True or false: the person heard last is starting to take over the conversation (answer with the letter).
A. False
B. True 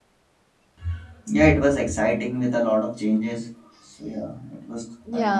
B